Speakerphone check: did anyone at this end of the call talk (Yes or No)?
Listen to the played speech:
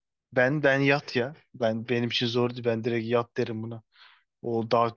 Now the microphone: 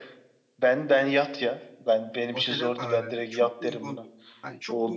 Yes